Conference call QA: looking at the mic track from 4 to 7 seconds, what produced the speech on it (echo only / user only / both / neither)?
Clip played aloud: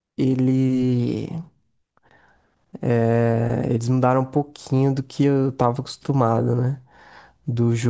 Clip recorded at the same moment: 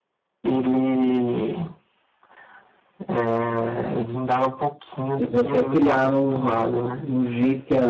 both